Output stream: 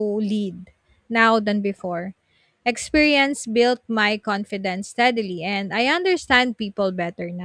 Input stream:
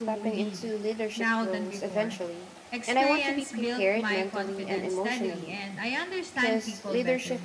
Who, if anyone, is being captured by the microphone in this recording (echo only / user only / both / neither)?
both